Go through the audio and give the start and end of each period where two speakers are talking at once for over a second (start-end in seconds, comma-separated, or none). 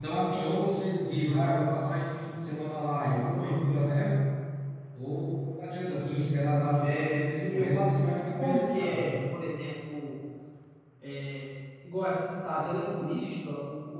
6.8-9.2